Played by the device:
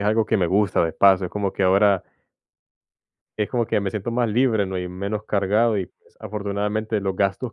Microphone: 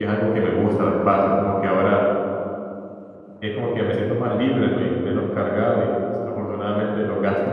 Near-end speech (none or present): none